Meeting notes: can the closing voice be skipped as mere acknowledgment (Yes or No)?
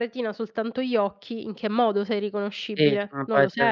No